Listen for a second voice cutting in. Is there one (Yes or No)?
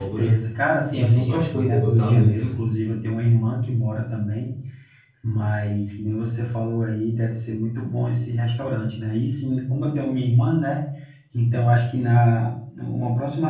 Yes